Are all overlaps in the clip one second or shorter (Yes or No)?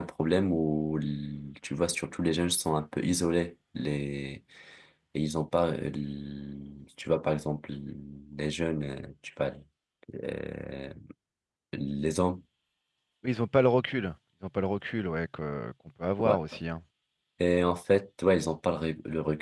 Yes